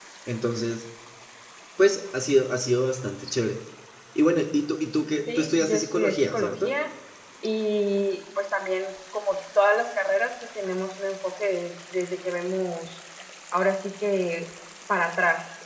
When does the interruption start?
5.3 s

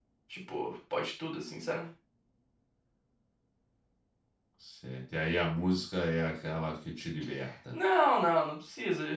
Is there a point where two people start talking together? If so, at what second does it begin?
none

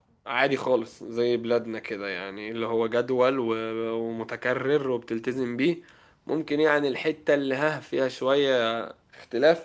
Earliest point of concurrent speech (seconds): none

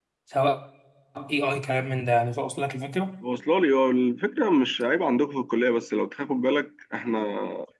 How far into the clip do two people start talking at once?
none

